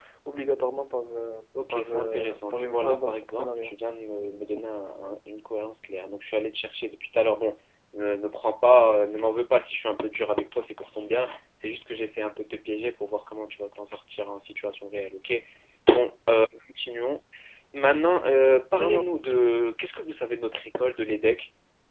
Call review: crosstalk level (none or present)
present